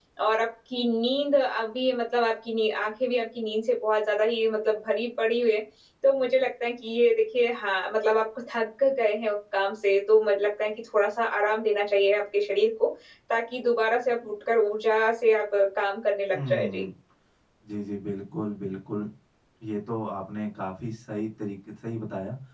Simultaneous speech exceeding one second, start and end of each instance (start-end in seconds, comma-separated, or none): none